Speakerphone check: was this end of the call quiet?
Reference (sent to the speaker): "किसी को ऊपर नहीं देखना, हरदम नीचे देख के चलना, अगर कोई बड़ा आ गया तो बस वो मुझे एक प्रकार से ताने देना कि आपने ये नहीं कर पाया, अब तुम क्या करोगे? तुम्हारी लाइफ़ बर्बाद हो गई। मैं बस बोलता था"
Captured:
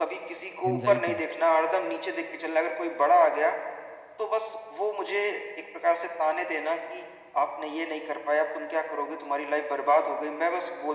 No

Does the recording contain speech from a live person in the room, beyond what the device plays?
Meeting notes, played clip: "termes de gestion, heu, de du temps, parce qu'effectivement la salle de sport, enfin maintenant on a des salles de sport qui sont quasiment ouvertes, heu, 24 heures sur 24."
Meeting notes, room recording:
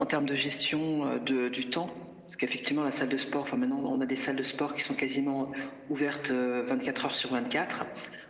No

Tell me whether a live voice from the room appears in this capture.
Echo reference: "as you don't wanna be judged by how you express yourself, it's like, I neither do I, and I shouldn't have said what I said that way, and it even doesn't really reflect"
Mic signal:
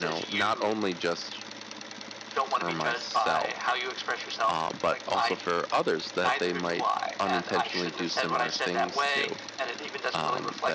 Yes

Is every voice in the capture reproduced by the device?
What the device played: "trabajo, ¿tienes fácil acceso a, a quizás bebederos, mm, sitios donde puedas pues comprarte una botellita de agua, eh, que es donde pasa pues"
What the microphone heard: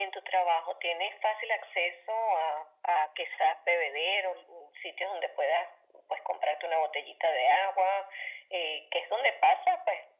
Yes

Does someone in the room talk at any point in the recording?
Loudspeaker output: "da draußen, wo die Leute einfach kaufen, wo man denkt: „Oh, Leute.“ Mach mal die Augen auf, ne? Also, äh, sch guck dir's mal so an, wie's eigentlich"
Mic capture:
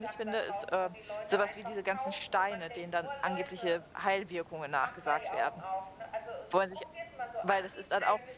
Yes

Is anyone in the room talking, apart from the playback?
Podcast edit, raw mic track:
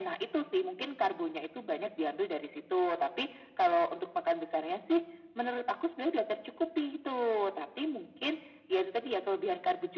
No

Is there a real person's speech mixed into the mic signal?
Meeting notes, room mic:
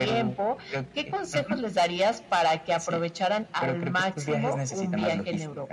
No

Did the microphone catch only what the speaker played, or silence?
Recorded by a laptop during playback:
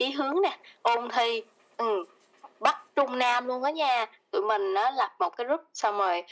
Yes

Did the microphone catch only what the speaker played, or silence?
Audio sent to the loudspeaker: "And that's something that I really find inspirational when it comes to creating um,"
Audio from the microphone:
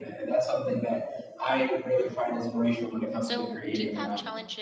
No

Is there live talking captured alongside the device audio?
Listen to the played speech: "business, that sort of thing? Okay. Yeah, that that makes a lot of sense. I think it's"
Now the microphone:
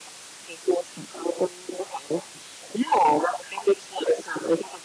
No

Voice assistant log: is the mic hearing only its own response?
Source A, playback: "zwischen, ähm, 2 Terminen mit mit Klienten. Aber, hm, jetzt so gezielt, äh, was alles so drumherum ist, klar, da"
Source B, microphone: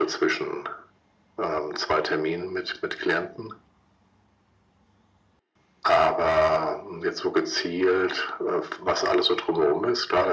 Yes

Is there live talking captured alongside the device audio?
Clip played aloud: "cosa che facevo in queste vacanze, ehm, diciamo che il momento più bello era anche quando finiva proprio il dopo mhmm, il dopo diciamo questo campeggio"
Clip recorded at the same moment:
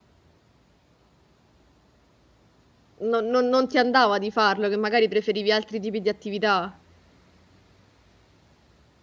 Yes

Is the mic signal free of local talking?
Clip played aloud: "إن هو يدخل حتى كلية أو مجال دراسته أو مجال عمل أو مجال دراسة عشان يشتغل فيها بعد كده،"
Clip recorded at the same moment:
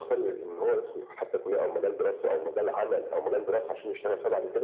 Yes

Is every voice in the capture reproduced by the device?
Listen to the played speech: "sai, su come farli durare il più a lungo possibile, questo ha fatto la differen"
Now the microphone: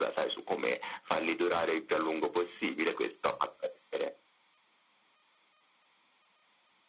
Yes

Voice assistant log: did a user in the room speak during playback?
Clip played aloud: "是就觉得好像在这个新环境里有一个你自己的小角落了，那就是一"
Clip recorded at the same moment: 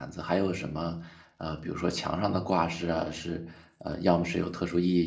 Yes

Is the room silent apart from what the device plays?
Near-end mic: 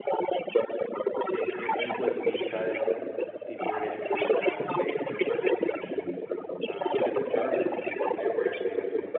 No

